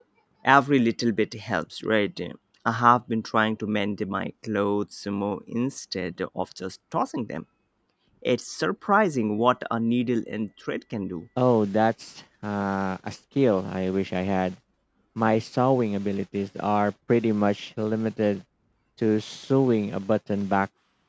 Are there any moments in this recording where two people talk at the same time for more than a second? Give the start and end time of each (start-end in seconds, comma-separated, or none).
none